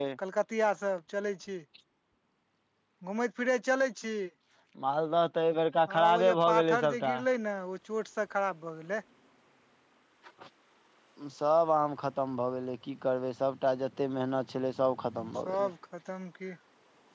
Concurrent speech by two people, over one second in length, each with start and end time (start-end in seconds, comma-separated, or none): 5.9-7.2